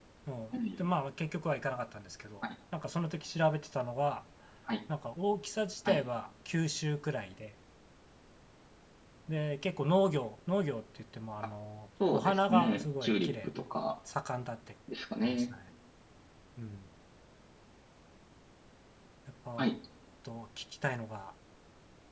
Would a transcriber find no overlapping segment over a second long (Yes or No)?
No